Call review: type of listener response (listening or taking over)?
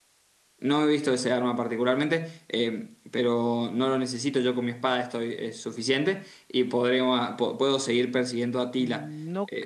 taking over